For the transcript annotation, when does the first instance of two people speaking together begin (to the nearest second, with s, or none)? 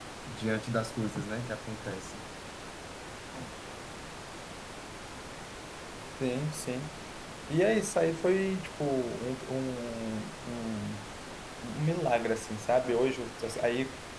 none